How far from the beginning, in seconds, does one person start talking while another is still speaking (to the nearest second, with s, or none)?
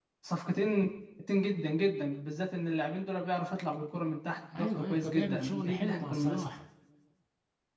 5 s